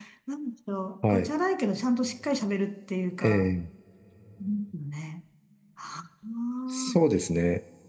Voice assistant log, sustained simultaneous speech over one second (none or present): none